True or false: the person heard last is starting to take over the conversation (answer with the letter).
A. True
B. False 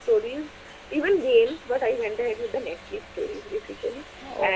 B